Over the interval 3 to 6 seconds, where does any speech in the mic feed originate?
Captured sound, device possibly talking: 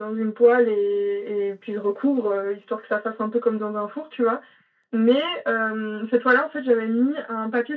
echo only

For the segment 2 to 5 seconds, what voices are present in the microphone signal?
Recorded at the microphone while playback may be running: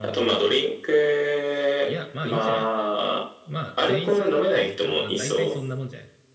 both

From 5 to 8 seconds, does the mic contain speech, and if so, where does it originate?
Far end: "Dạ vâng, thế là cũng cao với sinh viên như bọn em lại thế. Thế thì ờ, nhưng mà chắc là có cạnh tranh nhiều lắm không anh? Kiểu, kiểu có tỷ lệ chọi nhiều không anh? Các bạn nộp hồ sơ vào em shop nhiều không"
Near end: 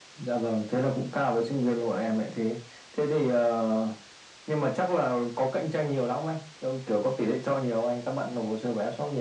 echo only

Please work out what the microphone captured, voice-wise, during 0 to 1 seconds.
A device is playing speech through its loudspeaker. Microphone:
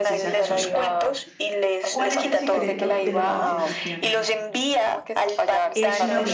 both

